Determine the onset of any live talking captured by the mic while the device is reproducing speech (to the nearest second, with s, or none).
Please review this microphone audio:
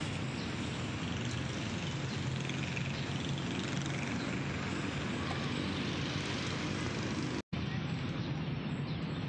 none